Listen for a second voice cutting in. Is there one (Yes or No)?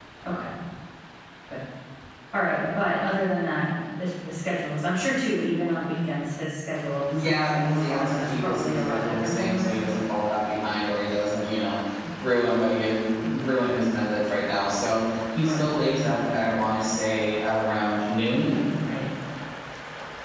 Yes